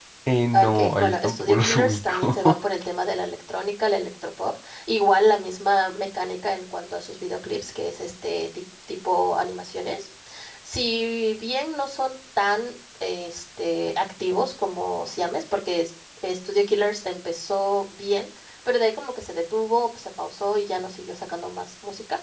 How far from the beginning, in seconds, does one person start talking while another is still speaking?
0.5 s

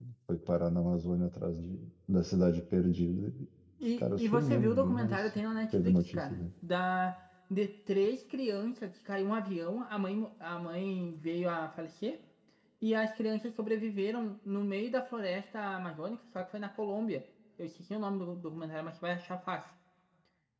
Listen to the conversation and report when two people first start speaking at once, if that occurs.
3.8 s

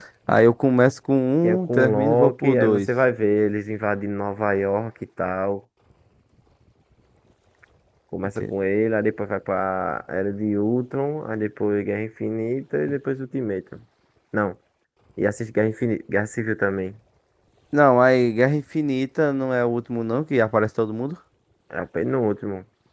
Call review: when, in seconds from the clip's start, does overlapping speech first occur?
1.6 s

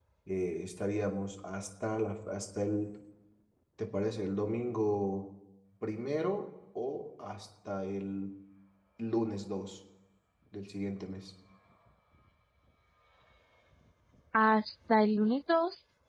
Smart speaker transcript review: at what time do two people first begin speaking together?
none

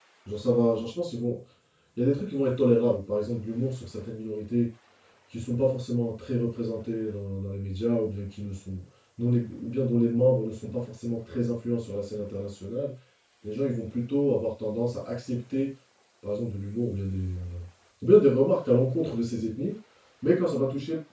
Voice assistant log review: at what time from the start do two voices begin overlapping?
none

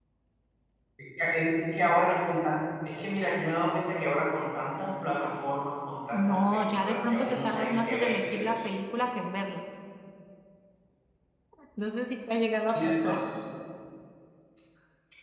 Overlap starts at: 6.1 s

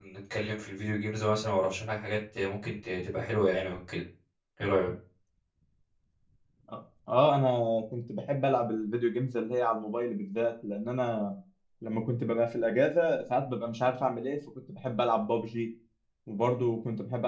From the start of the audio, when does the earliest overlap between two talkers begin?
none

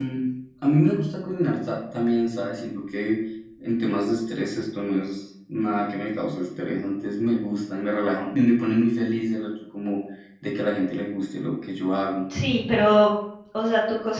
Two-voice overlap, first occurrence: none

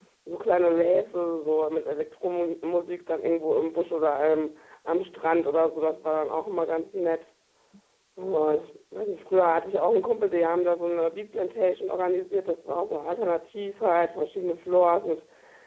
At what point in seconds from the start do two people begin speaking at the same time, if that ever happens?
none

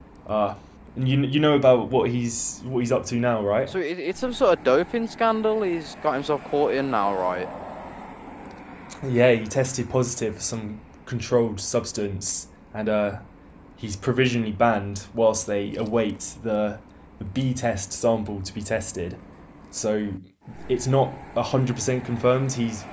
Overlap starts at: none

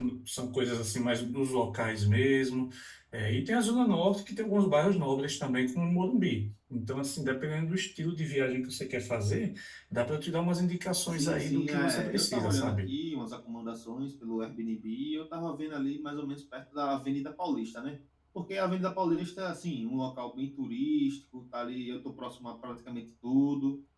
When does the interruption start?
11.1 s

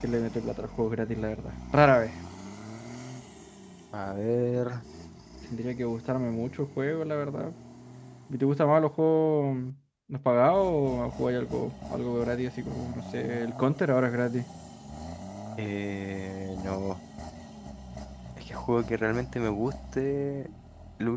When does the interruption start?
none

